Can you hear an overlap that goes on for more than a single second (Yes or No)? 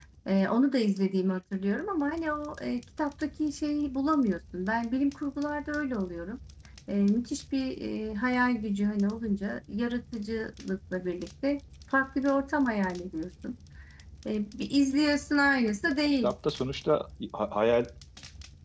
No